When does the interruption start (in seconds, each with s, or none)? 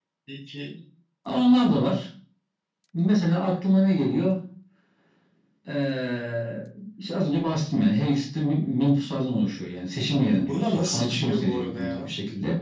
10.4 s